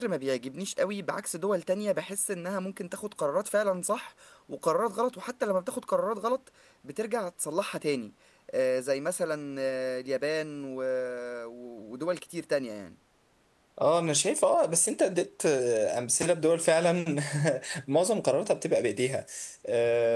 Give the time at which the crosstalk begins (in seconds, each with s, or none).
none